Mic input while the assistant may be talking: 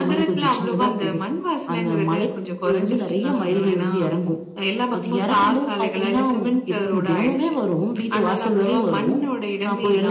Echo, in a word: present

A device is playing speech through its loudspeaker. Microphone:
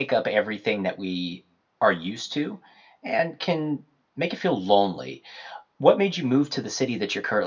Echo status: none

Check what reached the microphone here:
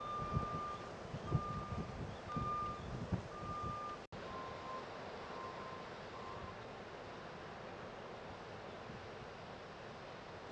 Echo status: none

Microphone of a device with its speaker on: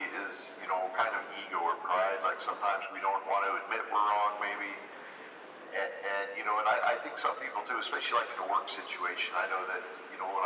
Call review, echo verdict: present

